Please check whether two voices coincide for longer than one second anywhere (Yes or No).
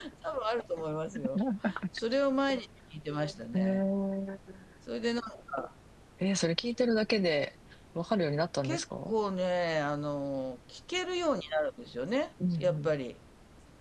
No